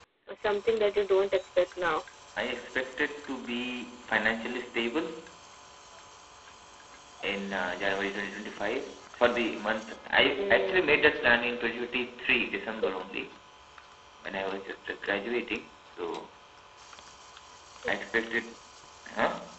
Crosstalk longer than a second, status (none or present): none